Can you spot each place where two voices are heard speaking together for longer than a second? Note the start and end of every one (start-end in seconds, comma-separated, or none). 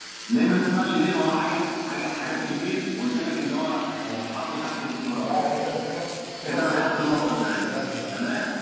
6.5-7.7